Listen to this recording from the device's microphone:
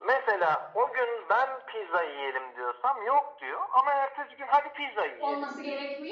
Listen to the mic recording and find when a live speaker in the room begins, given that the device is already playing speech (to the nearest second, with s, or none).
5 s